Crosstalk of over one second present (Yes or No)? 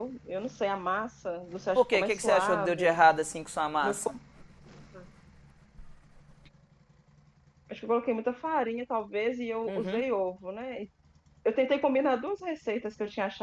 Yes